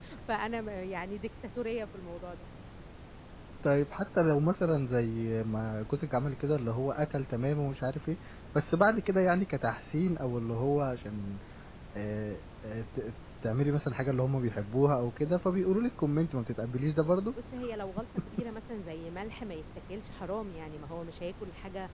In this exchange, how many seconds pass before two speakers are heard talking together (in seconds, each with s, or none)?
none